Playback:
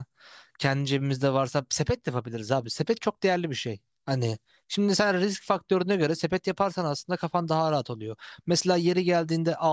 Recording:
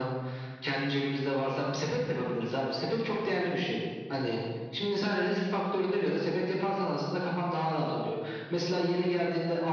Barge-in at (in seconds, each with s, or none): none